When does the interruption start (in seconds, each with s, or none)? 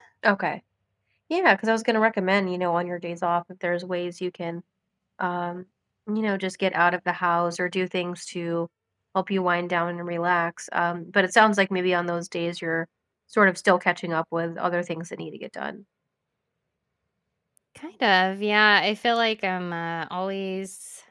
none